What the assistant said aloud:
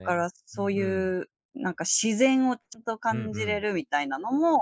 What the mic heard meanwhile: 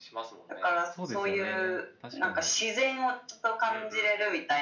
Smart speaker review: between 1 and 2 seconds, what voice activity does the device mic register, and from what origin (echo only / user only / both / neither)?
both